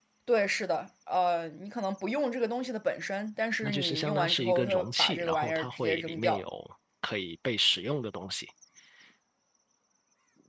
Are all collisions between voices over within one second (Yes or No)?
No